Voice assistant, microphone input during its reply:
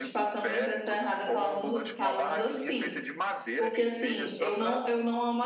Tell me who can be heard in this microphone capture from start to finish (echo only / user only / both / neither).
both